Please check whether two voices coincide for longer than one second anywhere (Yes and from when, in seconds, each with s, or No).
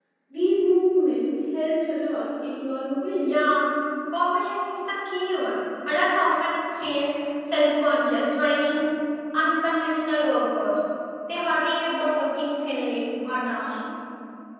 No